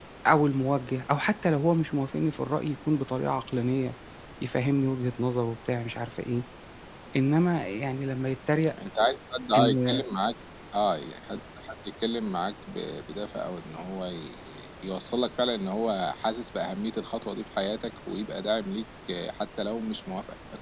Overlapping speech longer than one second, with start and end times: none

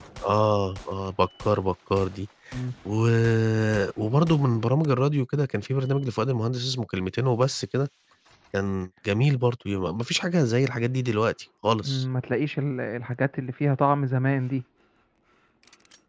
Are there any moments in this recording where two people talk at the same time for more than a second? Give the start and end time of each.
none

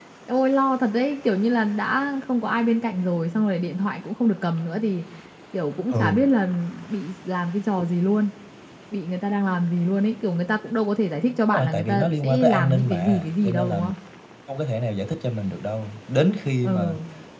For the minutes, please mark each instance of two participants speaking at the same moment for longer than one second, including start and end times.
11.5-13.8

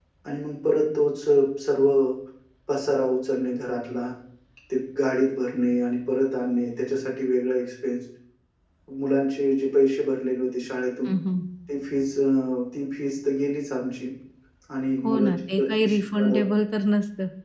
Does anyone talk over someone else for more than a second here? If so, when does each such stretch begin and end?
15.0-16.4

